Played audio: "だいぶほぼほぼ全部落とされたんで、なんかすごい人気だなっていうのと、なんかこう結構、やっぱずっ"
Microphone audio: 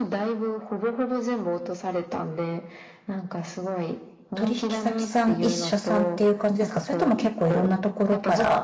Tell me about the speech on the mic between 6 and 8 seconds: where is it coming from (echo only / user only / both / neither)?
both